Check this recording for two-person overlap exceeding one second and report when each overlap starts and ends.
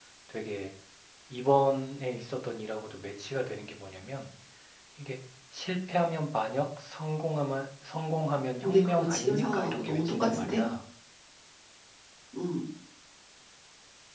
8.6-10.6

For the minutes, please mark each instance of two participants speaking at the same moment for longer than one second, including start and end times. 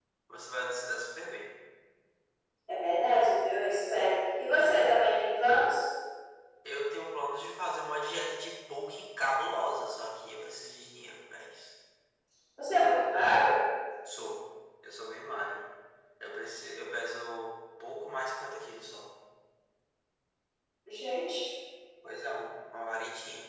none

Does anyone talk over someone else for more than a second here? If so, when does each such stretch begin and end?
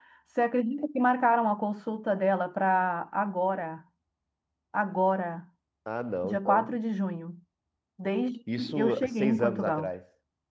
8.6-9.9

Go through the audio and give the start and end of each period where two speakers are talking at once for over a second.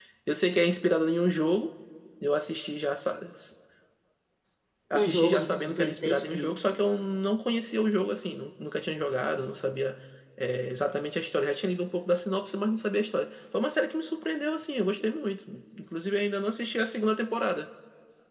4.9-6.7

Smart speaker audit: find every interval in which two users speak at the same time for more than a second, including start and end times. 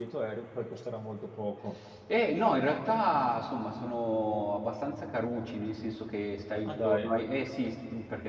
none

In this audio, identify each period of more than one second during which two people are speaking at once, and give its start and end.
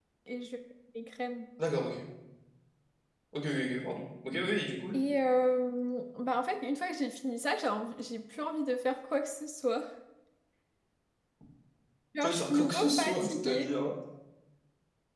12.2-13.7

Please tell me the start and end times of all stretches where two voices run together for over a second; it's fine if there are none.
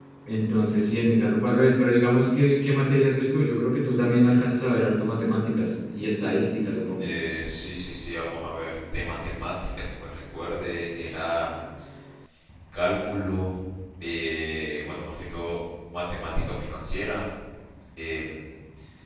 none

